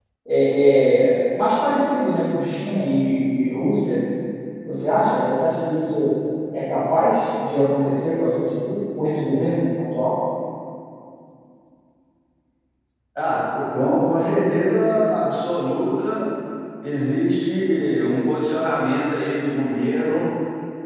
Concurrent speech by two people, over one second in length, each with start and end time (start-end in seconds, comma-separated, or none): none